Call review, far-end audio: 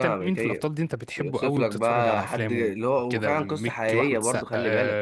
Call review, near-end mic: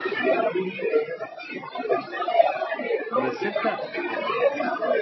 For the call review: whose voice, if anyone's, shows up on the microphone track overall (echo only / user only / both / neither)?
both